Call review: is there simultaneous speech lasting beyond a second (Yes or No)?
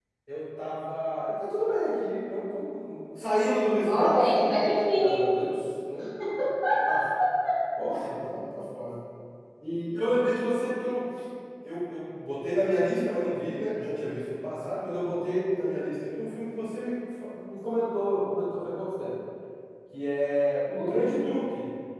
Yes